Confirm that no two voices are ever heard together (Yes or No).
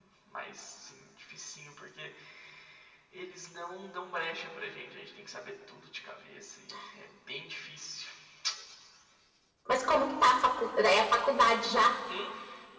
Yes